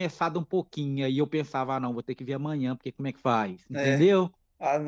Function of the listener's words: taking over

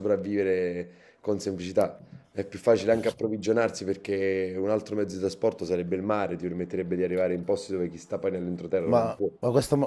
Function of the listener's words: taking over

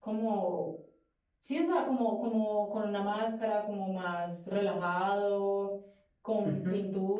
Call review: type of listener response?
listening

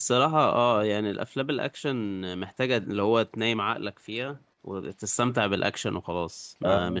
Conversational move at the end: listening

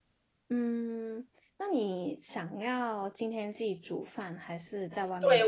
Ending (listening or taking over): taking over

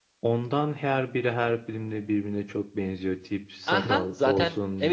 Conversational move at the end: taking over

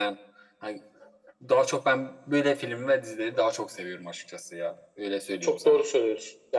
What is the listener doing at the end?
taking over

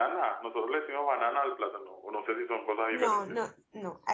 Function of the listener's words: taking over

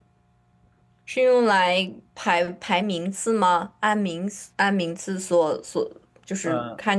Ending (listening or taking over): listening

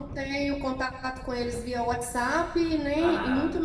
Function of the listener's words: listening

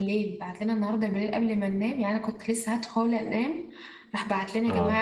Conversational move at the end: listening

